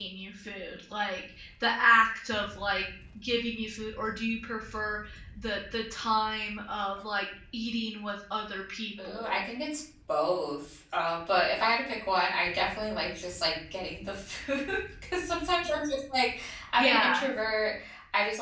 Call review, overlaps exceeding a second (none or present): none